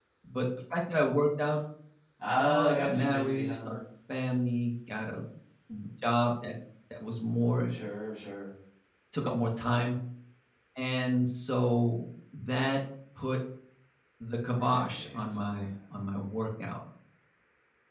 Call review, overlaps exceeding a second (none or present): present